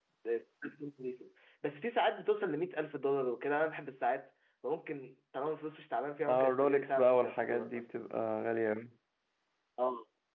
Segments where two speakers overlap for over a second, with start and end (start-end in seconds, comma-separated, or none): 6.3-7.9